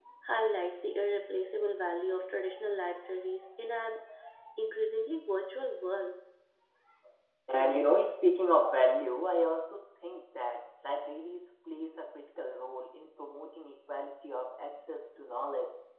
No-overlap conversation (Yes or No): Yes